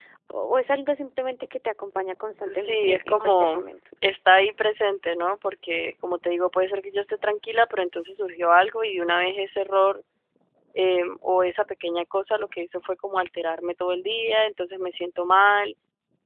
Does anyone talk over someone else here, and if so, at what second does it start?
2 s

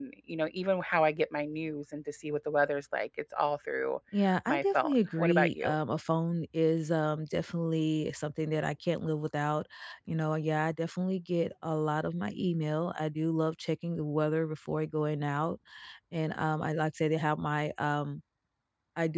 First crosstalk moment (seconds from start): 4 s

